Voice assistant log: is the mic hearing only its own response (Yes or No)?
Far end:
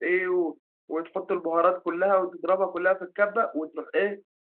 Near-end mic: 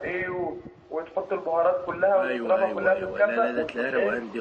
No